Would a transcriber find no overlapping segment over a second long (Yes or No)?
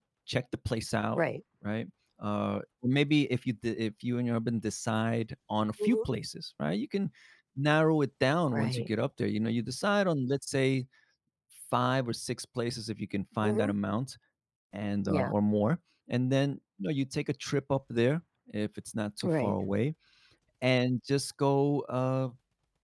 Yes